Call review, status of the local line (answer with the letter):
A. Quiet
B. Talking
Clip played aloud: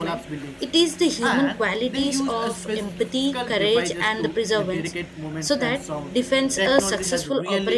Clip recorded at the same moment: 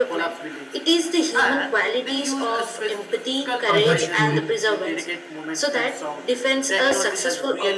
B